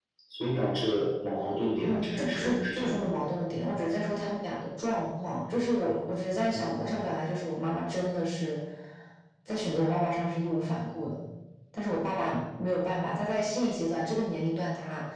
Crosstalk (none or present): present